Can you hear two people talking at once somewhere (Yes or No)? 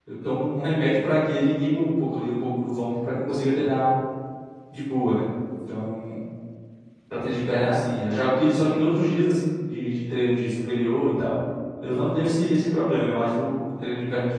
No